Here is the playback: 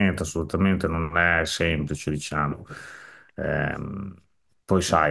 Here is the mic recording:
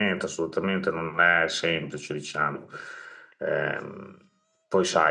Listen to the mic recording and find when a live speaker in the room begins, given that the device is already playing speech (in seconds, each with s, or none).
none